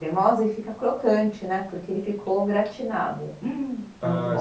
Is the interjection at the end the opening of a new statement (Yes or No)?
Yes